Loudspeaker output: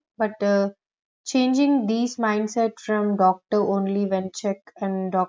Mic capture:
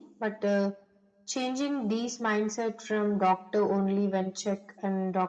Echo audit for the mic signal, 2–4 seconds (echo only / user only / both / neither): echo only